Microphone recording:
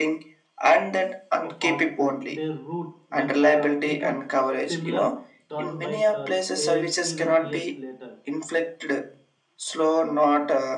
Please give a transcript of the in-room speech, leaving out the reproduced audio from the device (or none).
uh, fast food, their route that uh, become familiar turn by turn, ev- even years later.